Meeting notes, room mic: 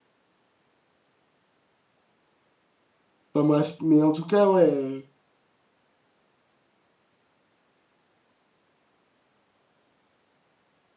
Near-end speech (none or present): present